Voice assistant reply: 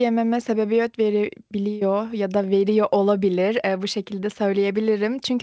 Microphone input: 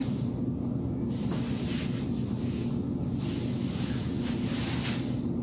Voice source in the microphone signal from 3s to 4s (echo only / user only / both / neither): neither